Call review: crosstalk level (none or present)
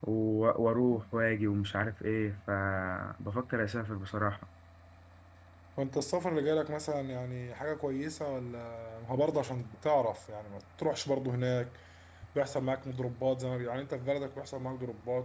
none